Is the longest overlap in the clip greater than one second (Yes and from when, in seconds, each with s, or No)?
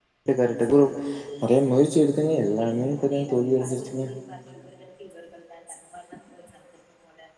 Yes, from 2.5 s